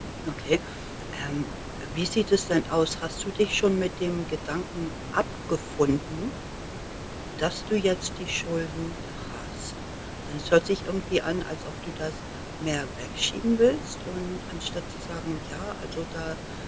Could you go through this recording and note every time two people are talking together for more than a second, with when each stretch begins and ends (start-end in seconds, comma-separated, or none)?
none